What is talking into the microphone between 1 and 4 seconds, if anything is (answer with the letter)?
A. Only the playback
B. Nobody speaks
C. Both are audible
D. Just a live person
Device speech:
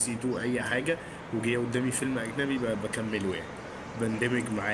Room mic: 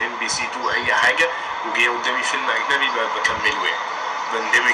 A